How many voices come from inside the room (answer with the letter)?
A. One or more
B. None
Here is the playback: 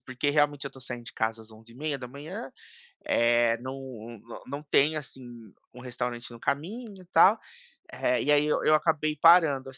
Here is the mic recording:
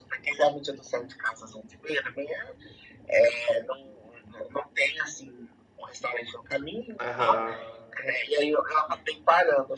A